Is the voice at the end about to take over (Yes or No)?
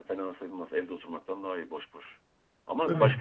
No